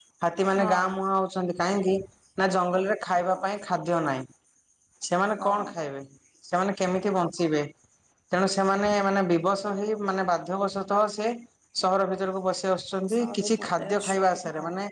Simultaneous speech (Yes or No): Yes